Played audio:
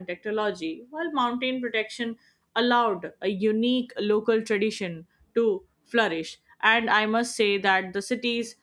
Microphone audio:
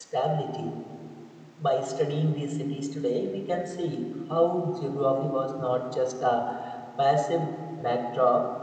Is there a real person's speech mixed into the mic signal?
Yes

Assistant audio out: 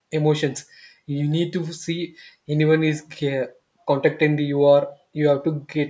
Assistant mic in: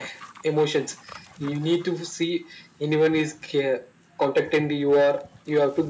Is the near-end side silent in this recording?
Yes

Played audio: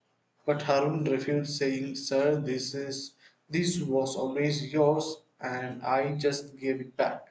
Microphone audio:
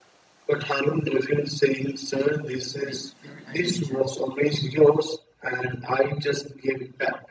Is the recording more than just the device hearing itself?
Yes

